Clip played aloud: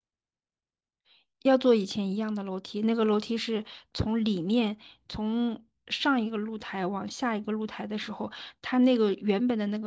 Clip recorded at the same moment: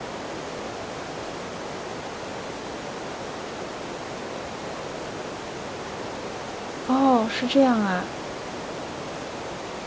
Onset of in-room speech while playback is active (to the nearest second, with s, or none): 7 s